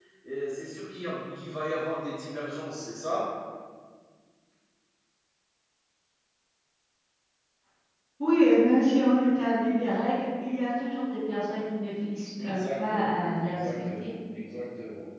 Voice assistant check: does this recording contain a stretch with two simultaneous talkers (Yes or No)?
Yes